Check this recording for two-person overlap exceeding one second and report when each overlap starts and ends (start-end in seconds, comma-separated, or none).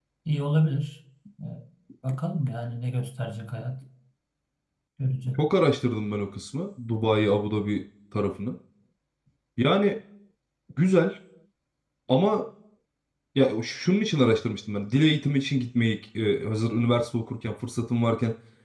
none